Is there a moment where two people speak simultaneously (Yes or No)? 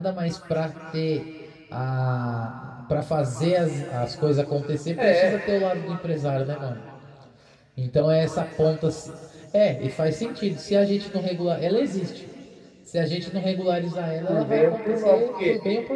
Yes